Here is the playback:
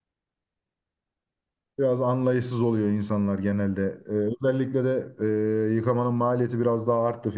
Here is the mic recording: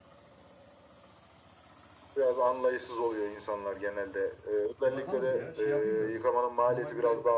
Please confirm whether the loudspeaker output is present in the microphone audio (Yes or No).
Yes